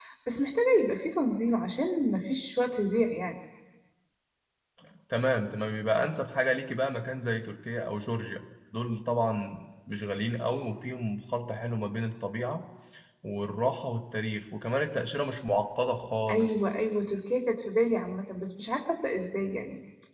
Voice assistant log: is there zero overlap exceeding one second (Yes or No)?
Yes